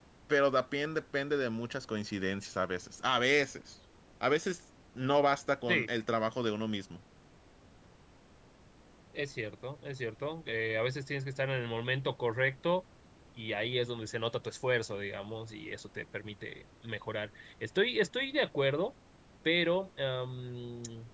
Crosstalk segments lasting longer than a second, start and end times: none

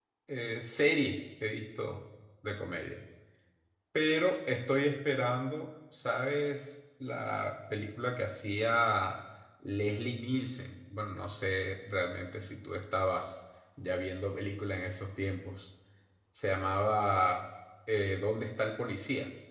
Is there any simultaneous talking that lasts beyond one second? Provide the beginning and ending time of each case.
none

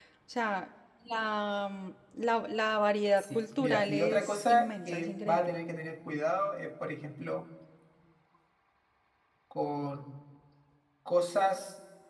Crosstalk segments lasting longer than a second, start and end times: 3.2-5.6

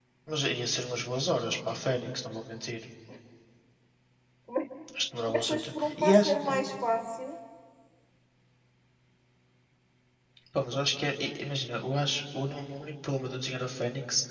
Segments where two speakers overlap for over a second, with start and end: 5.3-6.6

